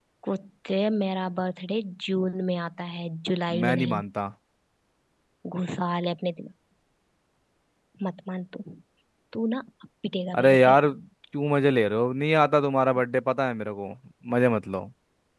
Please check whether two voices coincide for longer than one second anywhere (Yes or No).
No